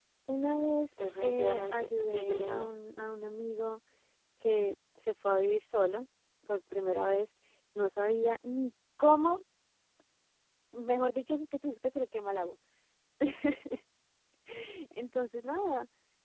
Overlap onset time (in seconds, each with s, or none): 1.2 s